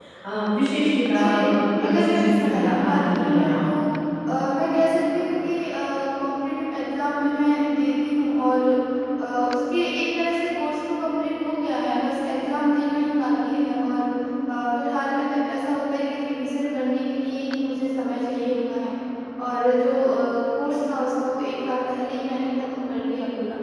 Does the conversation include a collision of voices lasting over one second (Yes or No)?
Yes